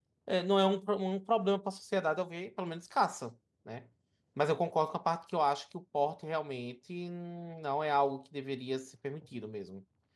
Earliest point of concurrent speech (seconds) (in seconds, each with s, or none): none